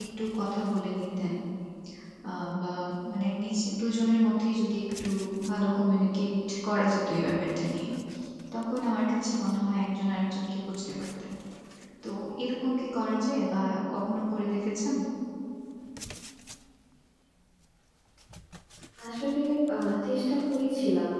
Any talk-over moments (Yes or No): No